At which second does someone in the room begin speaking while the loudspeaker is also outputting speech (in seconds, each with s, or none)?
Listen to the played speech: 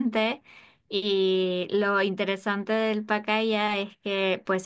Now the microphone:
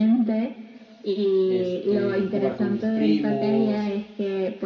1.5 s